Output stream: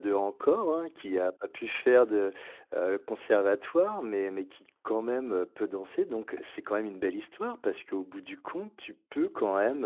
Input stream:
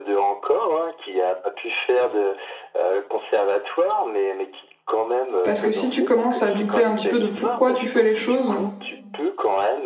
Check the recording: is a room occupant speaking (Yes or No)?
Yes